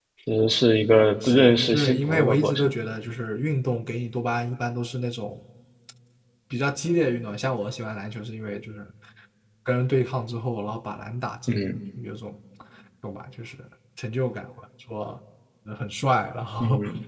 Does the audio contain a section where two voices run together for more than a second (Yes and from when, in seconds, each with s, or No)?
Yes, from 1.2 s